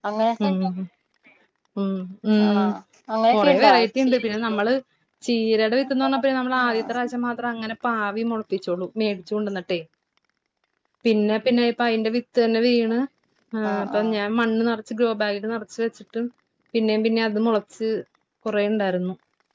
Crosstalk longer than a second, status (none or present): present